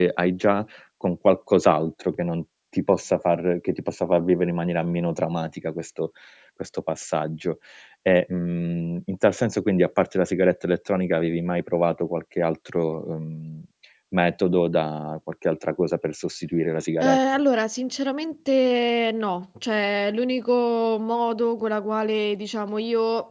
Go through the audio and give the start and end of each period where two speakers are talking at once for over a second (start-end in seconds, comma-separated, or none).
none